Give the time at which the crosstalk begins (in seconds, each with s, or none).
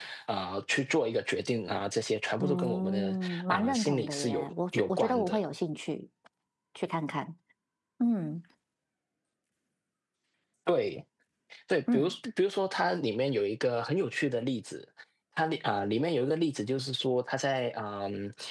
2.4 s